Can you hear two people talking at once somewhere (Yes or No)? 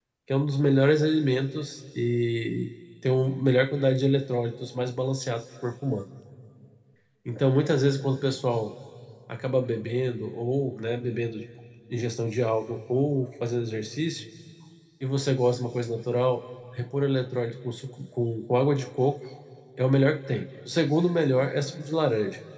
No